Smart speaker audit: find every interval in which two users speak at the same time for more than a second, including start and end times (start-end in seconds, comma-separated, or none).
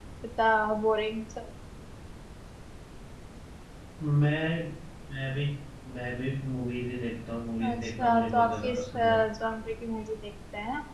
7.7-9.2